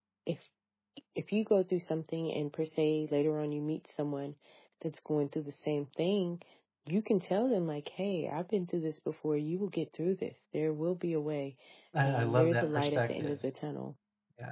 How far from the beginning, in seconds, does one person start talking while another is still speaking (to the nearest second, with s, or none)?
12 s